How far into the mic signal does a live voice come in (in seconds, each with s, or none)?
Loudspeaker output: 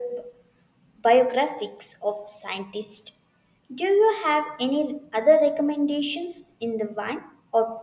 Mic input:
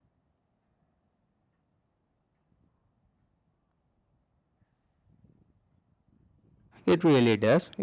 6.9 s